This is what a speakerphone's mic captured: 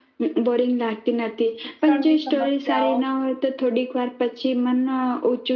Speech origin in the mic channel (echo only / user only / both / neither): both